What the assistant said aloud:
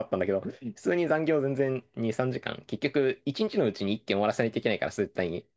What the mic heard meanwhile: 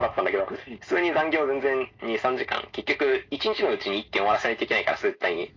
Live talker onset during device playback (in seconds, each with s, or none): none